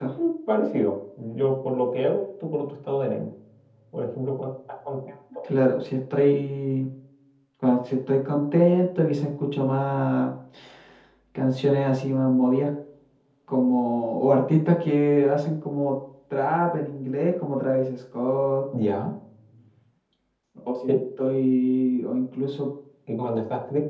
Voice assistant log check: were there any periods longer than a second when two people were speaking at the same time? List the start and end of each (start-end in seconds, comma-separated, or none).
none